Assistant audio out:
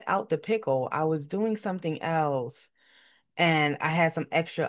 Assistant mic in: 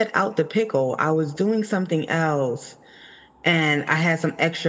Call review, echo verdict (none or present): present